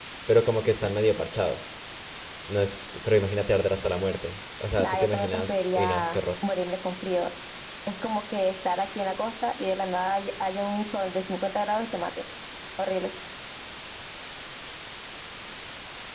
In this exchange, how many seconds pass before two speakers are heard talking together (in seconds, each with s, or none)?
4.8 s